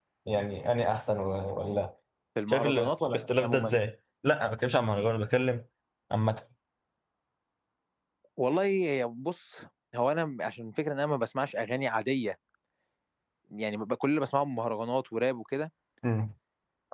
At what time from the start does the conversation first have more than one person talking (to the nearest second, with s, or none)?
2 s